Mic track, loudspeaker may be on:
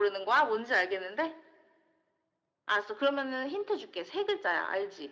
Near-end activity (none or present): none